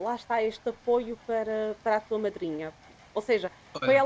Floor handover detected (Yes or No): No